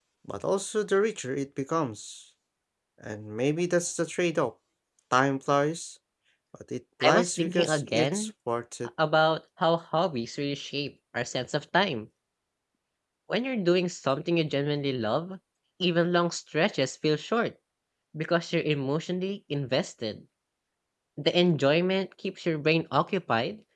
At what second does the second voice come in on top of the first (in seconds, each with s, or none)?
7.0 s